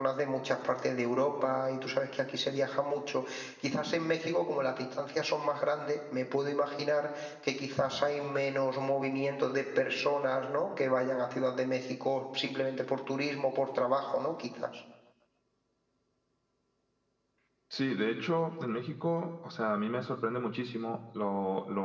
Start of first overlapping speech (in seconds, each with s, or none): none